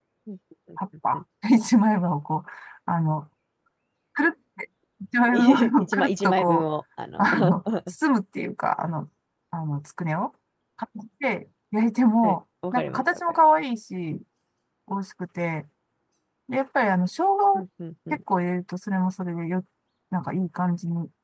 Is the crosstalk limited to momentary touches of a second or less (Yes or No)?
No